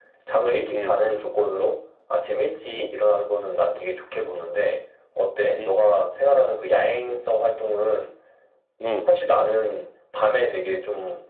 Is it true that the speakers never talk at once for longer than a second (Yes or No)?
Yes